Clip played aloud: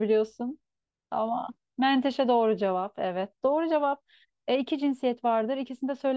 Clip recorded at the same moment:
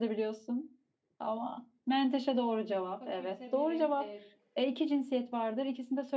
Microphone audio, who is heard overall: both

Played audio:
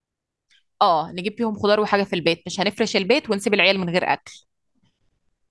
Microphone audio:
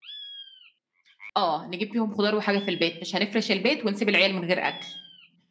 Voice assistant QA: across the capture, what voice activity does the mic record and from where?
echo only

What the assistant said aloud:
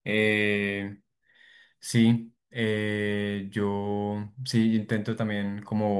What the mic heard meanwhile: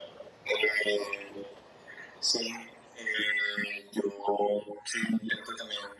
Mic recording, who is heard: echo only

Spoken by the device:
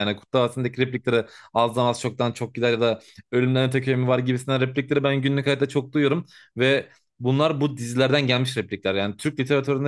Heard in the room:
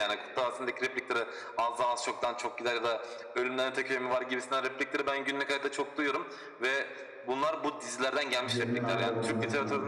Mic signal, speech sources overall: both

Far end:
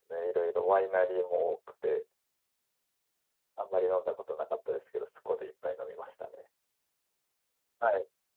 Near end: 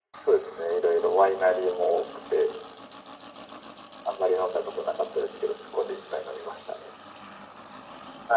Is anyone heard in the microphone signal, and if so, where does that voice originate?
echo only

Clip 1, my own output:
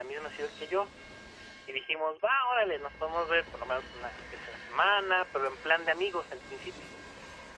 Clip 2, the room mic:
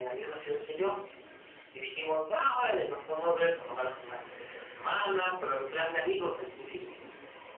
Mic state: echo only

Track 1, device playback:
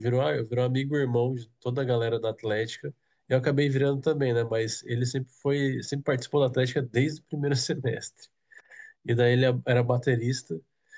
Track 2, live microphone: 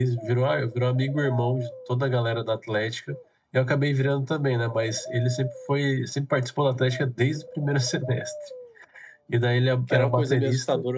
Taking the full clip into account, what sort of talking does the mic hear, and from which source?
both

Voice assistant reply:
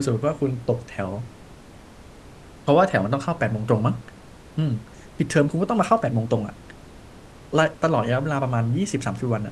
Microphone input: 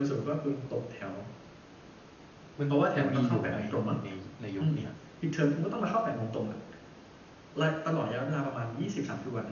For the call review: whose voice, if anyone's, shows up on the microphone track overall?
both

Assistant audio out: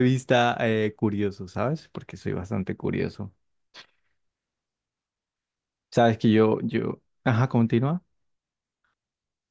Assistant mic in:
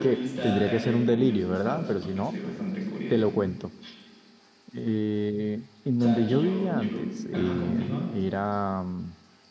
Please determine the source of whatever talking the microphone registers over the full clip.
both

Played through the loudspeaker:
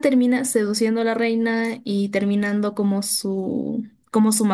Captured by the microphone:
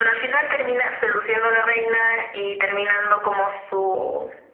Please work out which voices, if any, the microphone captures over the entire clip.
echo only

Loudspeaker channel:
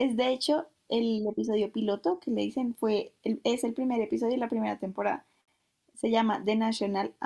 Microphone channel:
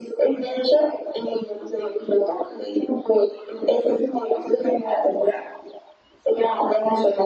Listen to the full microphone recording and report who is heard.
echo only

